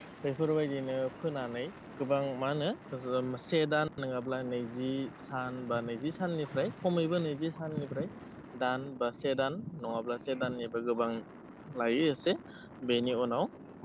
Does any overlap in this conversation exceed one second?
No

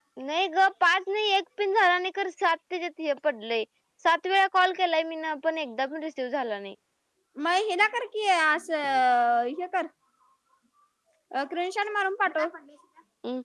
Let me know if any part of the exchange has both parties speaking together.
No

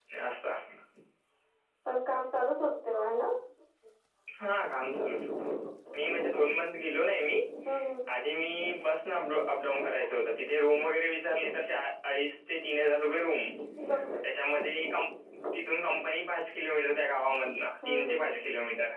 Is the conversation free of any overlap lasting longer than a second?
Yes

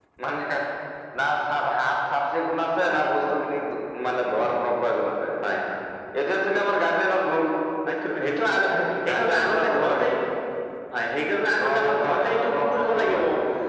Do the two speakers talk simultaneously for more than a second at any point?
Yes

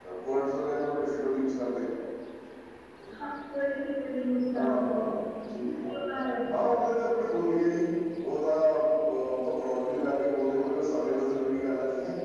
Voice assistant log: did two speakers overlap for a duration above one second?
No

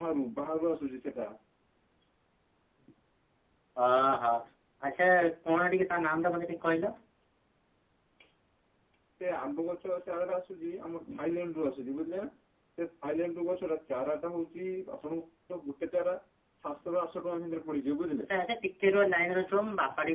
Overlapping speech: No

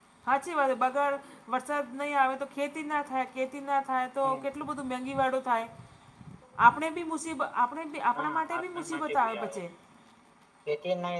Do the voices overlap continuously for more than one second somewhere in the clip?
Yes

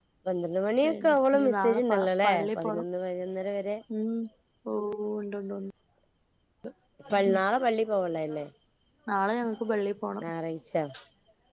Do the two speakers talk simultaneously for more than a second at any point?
Yes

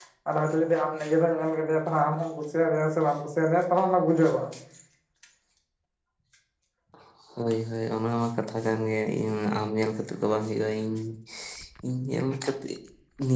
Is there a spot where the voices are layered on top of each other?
No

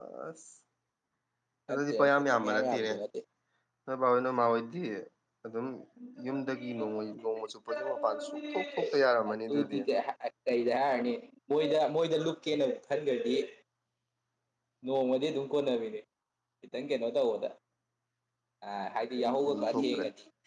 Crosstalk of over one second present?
Yes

